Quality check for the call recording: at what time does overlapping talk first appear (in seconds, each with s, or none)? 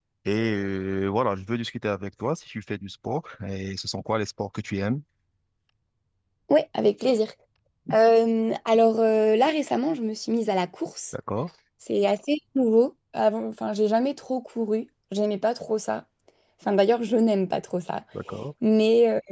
none